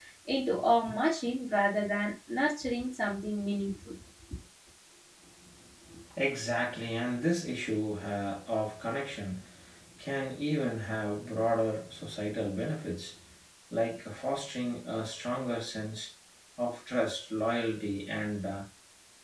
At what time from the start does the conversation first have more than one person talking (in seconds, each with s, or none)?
none